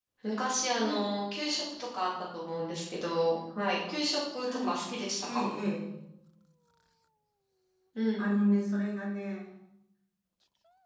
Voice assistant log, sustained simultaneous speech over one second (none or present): none